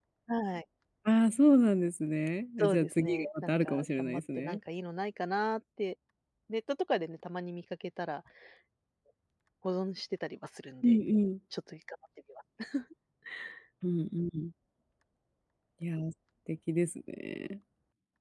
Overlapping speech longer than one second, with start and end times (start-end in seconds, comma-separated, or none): 2.6-4.6